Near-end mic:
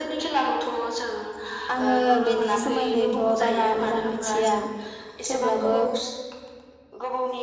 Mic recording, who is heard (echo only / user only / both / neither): both